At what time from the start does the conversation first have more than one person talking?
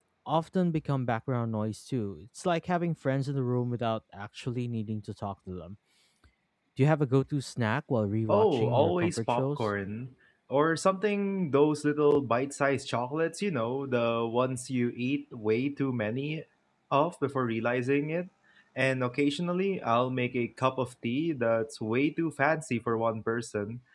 8.3 s

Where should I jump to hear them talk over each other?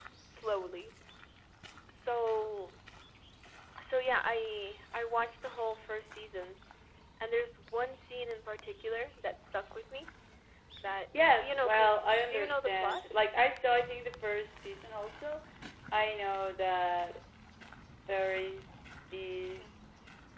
11.2 s

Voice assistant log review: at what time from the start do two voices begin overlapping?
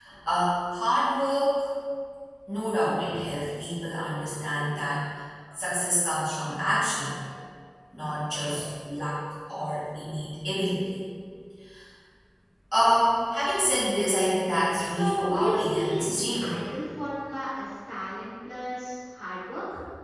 14.8 s

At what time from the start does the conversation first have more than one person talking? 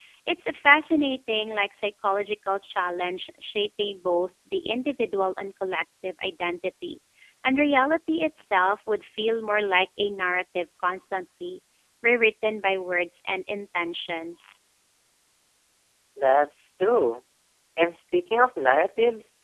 none

